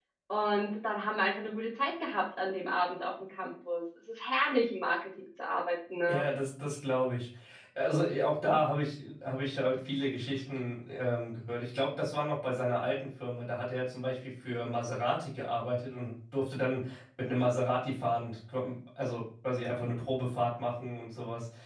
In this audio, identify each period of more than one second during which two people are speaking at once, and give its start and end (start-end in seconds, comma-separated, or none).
none